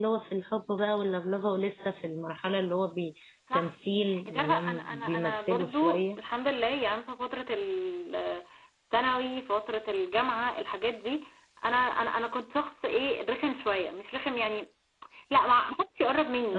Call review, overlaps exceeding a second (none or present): present